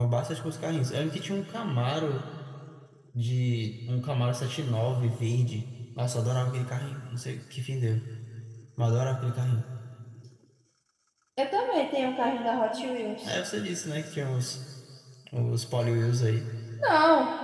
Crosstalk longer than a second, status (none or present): none